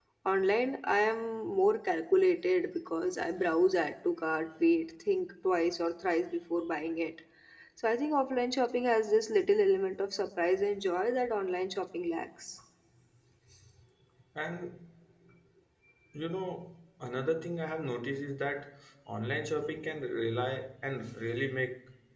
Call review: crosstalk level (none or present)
none